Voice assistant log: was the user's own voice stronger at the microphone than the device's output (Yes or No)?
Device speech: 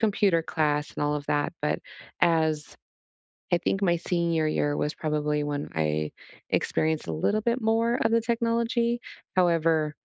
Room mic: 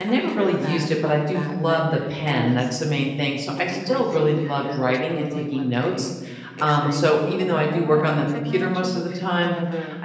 Yes